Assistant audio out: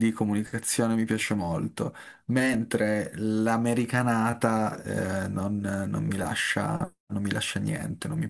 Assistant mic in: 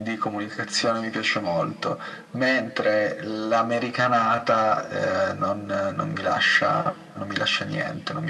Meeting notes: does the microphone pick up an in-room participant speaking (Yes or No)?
No